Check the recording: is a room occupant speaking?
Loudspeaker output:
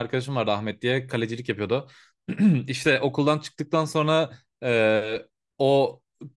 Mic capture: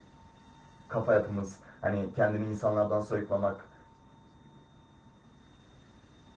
Yes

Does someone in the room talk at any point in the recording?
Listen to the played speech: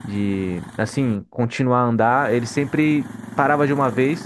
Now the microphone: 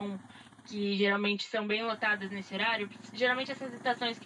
Yes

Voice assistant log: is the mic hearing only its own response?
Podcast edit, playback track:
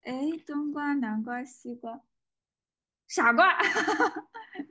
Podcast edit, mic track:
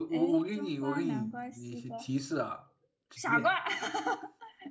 No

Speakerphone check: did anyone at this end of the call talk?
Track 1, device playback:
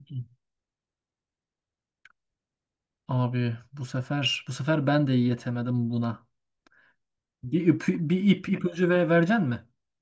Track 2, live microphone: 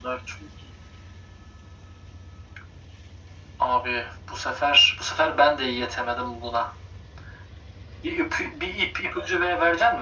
No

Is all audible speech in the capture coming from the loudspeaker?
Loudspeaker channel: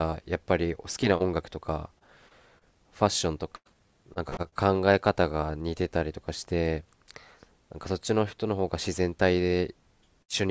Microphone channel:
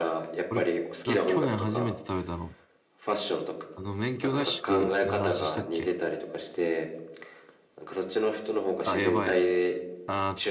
No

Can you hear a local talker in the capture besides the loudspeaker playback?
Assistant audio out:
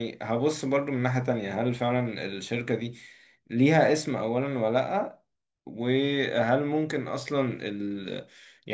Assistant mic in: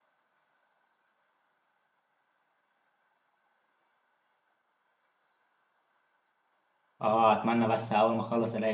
Yes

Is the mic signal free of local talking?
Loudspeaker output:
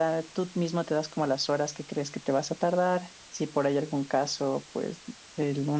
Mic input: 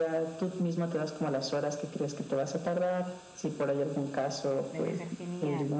No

